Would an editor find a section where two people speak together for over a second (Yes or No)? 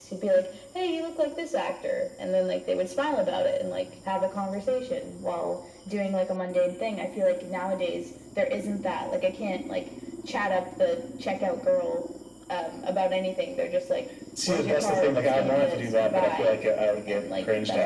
Yes